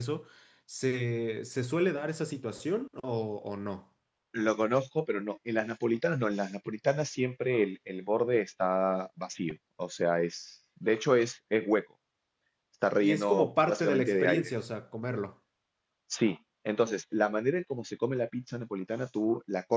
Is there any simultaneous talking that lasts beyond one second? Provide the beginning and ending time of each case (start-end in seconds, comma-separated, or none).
13.0-14.5